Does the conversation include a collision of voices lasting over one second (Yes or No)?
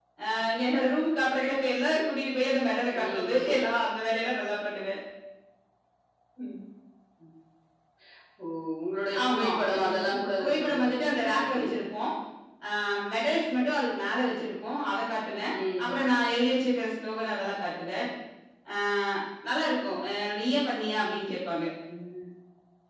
Yes